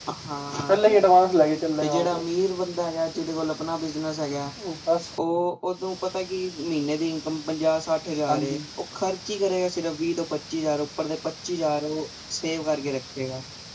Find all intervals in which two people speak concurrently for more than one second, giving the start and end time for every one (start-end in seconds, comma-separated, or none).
none